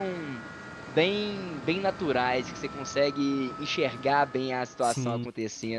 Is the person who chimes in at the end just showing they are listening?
Yes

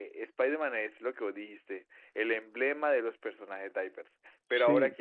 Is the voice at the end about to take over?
No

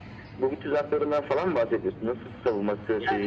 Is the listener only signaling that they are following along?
No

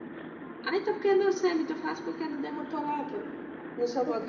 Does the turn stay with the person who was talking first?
No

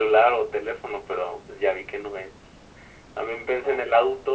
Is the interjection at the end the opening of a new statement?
No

